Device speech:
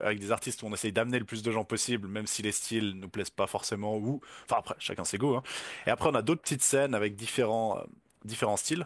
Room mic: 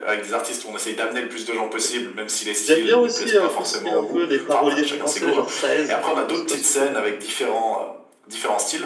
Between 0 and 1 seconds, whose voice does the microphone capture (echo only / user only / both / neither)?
echo only